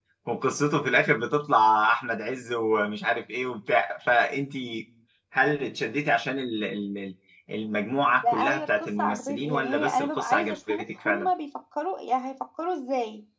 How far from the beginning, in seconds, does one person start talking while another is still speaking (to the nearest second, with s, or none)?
8 s